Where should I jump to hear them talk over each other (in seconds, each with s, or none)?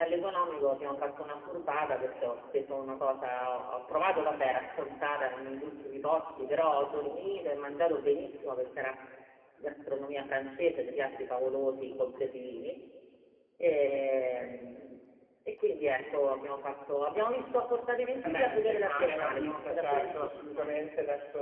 18.2 s